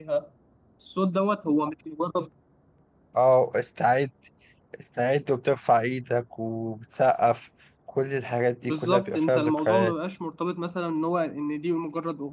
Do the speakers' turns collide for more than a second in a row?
Yes, from 8.6 s

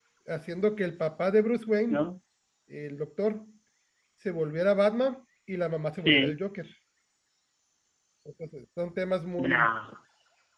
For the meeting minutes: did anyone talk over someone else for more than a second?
No

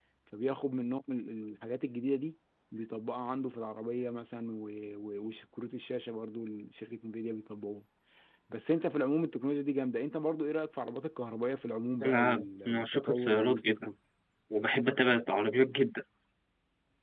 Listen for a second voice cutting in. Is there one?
Yes, from 12.0 s

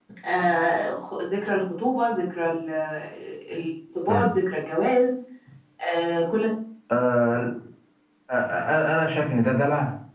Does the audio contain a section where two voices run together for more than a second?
No

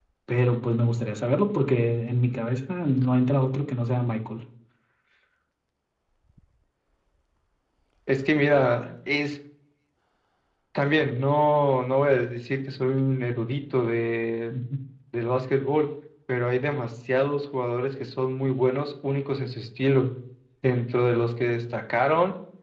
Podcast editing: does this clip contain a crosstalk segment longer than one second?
No

